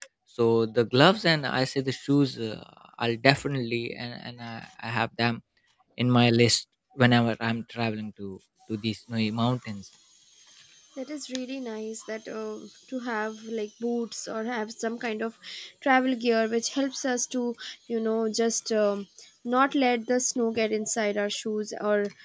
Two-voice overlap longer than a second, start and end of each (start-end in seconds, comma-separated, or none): none